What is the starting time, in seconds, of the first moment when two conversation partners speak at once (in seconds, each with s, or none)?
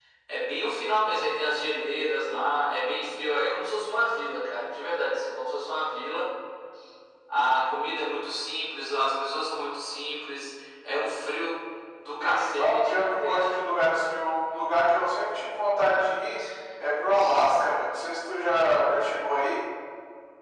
12.2 s